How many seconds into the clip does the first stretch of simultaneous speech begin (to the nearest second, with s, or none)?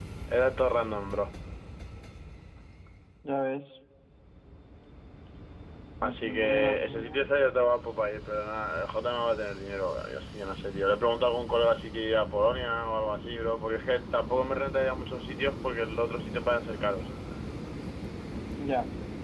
6 s